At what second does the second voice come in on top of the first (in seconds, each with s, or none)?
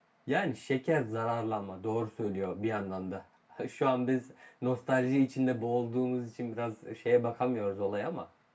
none